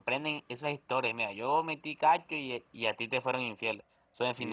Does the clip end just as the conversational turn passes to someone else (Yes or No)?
No